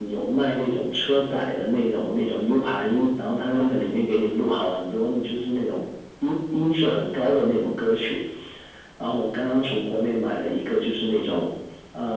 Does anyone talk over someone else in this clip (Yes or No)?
No